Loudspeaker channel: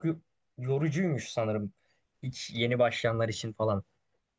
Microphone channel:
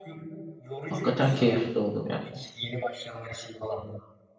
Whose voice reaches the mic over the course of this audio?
both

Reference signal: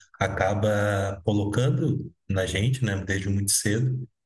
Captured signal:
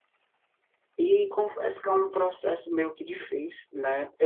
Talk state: user only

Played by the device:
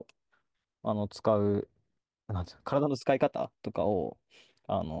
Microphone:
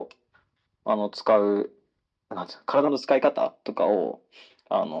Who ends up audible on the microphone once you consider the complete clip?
echo only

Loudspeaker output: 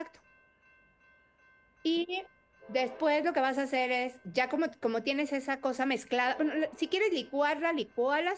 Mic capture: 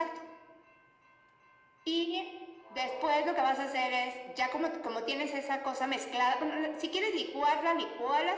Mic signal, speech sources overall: echo only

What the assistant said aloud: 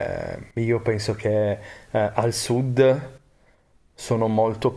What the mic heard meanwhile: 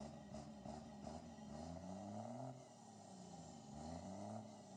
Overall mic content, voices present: neither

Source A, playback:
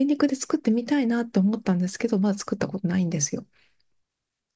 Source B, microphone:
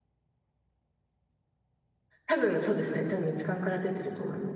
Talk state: user only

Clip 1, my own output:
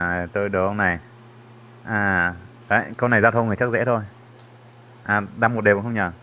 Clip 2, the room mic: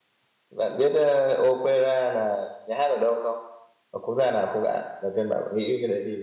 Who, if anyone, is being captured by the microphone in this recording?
user only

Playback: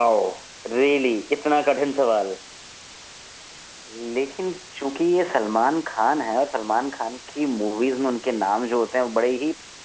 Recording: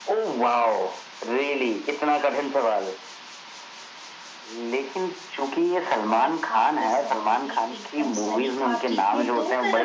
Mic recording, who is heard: both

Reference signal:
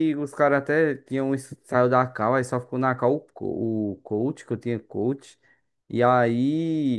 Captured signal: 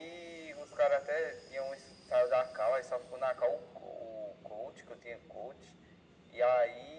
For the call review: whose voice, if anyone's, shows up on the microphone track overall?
echo only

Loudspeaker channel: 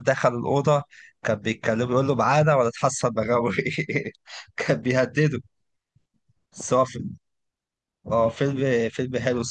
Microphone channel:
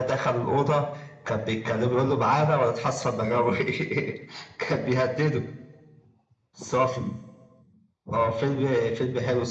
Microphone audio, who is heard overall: echo only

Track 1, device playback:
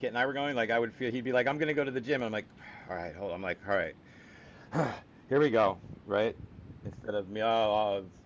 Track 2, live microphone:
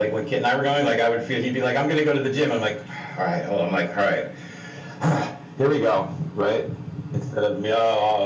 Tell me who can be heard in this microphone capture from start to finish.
echo only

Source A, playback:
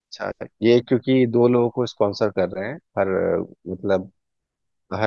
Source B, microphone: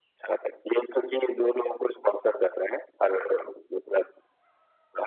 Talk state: echo only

